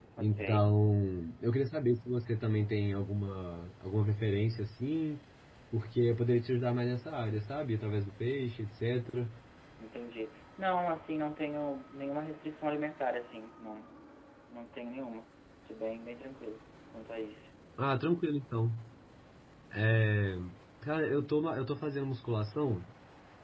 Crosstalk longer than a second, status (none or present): none